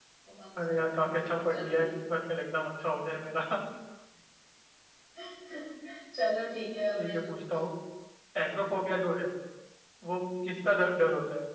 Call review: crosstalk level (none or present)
present